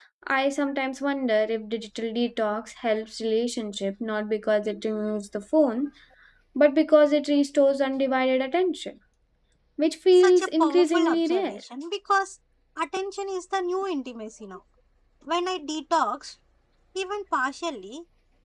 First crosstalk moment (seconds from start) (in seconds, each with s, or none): 10.1 s